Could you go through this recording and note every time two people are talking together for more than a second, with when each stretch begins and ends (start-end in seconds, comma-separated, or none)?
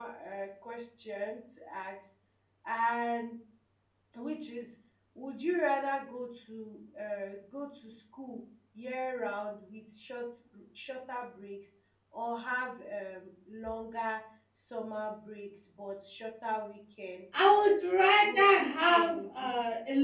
18.2-19.5